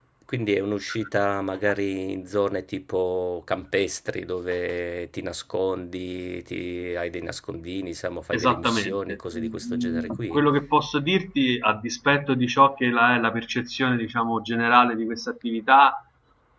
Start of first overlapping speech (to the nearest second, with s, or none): 8 s